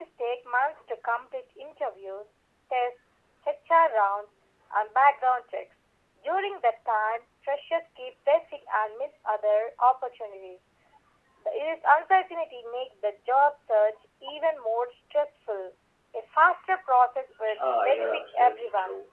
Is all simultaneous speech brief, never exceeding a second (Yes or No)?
No